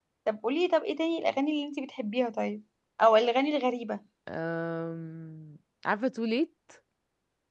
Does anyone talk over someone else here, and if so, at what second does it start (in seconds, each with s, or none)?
none